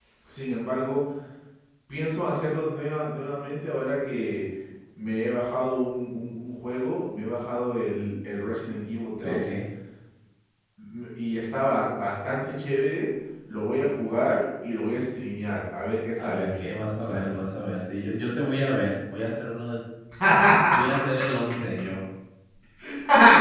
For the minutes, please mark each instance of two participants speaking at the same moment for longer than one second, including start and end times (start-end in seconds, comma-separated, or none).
16.2-17.4